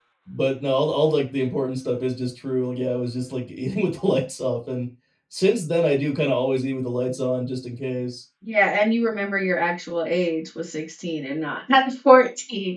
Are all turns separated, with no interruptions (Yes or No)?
Yes